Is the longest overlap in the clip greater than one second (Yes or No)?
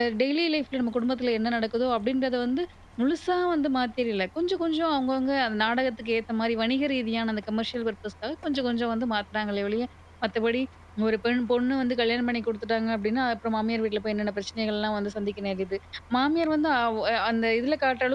No